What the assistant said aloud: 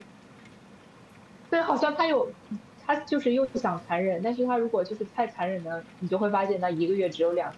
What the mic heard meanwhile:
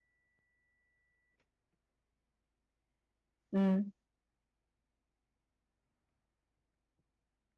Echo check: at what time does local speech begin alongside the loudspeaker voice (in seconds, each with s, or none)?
3.5 s